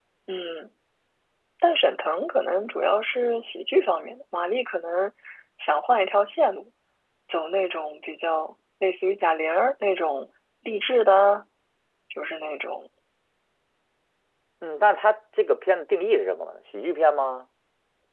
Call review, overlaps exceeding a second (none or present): none